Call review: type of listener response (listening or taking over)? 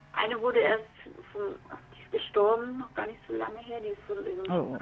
listening